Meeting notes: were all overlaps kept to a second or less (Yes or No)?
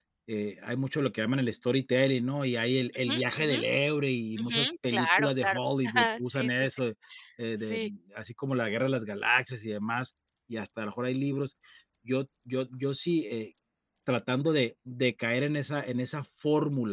No